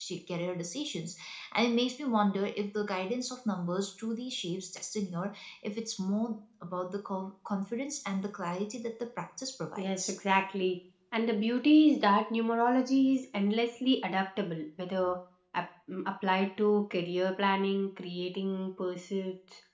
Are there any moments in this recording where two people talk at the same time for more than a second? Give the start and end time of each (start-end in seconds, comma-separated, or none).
none